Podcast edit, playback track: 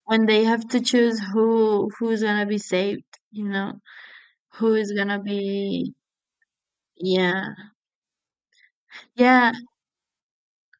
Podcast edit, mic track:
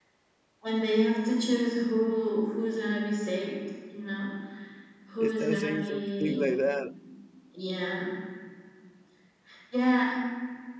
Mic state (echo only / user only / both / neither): both